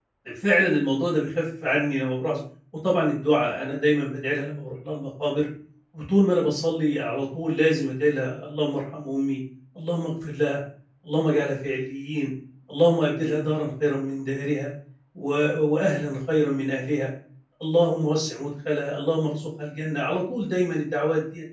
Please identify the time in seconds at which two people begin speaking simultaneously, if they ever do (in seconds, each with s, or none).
none